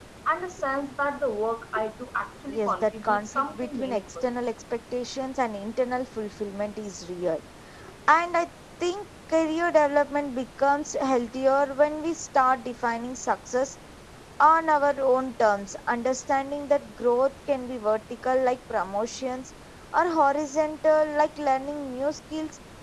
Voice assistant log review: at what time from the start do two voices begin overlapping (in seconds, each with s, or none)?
2.5 s